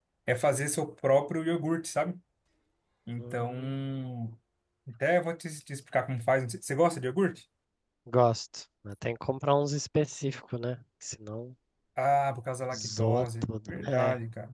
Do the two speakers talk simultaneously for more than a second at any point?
Yes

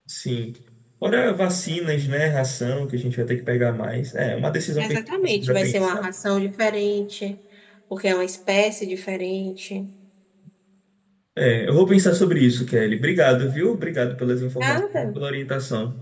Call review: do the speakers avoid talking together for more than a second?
No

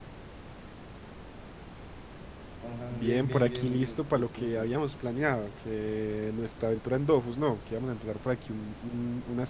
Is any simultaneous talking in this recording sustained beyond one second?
Yes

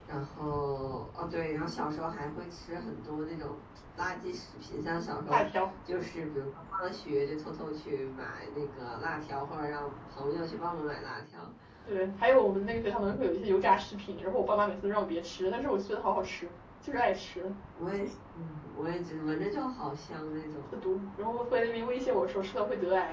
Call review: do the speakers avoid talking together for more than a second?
Yes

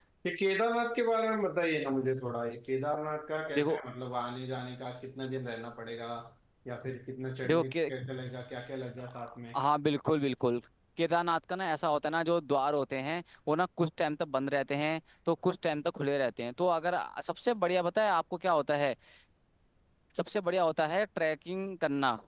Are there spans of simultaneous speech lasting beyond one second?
No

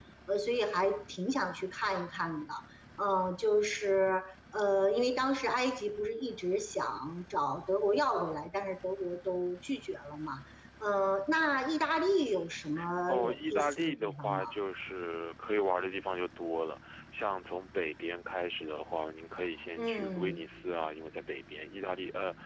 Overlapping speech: Yes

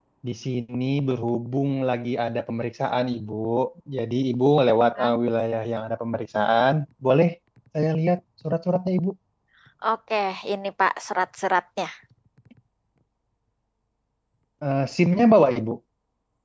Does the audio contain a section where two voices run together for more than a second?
No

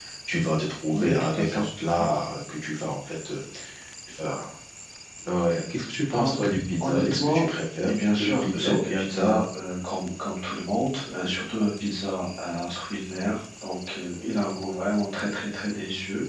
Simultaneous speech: Yes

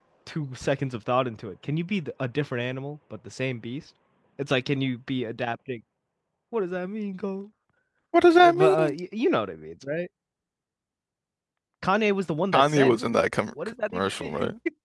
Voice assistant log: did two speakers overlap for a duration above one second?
No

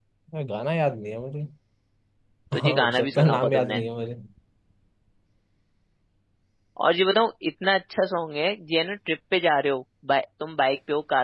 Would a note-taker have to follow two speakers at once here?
Yes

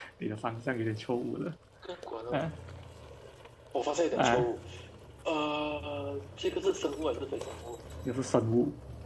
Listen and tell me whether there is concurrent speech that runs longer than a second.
No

